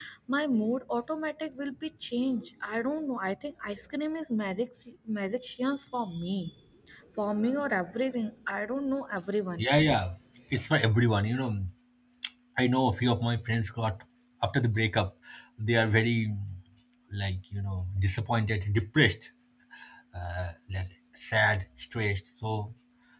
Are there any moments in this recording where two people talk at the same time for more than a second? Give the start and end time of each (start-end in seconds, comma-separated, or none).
none